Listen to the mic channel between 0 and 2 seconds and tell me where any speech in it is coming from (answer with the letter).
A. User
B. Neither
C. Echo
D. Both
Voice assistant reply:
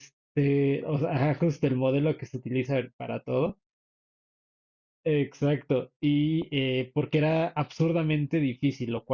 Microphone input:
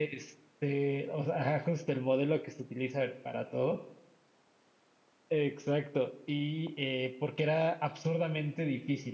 C